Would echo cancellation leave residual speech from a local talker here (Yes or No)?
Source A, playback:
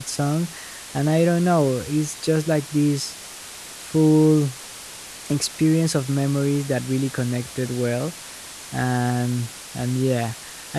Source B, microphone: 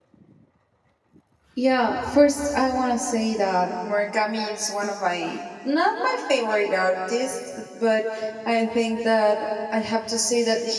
Yes